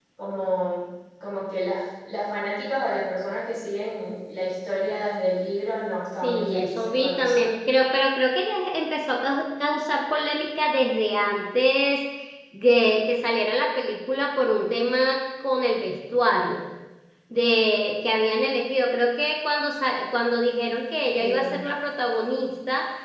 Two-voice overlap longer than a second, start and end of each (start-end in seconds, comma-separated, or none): 6.2-7.4